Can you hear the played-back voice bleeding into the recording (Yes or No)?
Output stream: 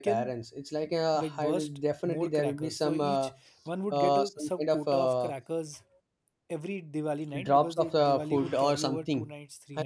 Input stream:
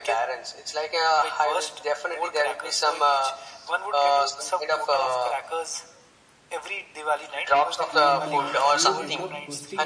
Yes